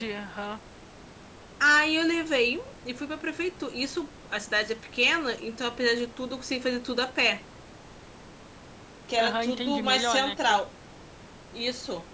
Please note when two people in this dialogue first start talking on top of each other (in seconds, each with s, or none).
9.2 s